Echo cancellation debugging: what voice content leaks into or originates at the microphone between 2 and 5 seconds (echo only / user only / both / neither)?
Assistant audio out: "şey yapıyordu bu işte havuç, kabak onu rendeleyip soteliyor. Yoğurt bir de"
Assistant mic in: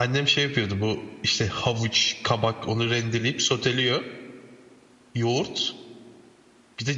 echo only